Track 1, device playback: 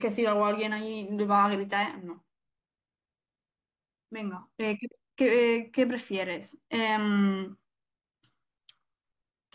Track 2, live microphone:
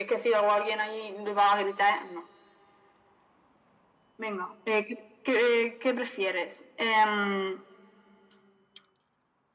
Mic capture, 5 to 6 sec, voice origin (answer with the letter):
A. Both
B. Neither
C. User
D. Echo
D